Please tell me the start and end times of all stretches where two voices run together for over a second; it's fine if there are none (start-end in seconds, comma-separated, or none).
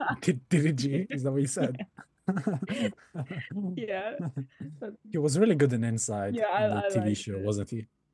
6.3-7.5